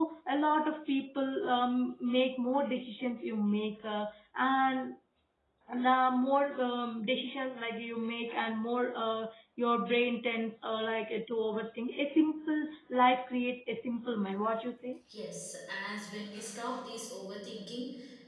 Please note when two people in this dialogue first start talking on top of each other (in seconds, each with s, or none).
none